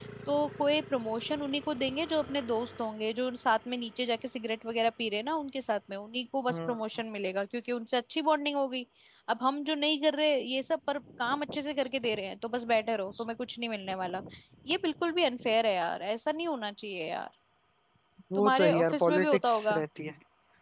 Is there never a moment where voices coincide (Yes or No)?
No